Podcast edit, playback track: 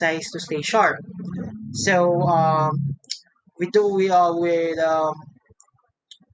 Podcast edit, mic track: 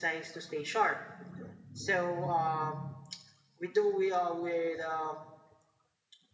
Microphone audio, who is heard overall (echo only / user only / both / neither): echo only